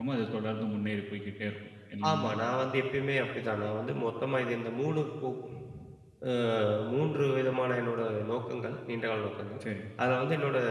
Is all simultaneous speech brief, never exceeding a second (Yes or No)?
Yes